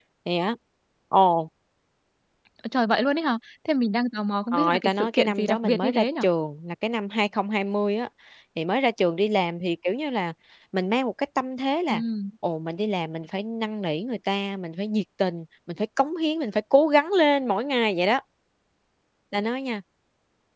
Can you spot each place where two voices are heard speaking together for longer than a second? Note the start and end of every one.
4.5-6.2

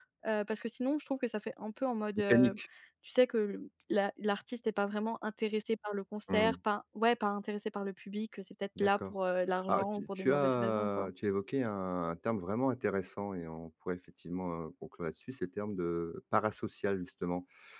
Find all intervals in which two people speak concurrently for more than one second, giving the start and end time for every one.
9.7-11.1

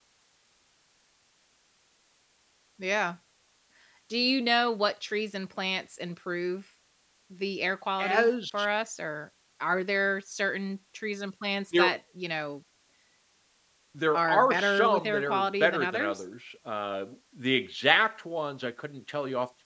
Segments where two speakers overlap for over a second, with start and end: 14.1-16.2

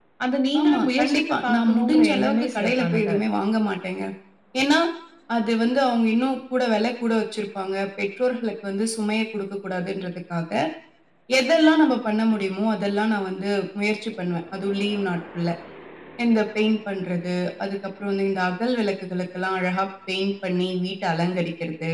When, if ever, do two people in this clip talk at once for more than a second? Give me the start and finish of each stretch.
0.6-3.2

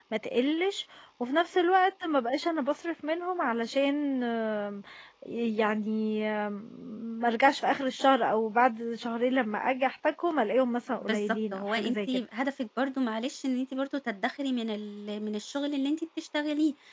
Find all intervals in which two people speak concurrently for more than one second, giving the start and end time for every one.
11.0-12.2

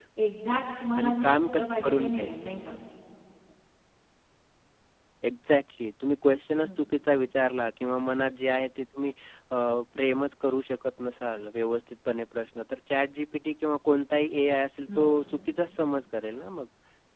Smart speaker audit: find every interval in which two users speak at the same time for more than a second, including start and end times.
1.0-2.3

